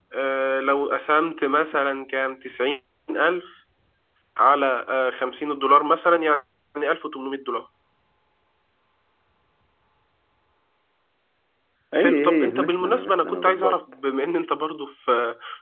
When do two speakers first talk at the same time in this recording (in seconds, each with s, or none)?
11.9 s